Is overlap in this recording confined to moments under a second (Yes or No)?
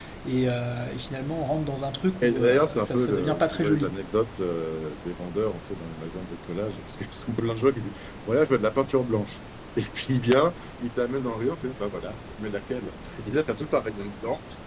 No